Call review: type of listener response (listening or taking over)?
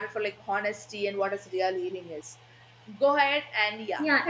taking over